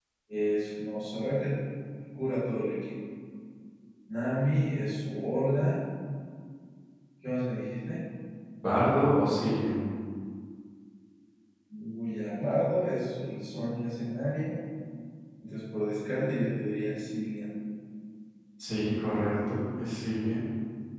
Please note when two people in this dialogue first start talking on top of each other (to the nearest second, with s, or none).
none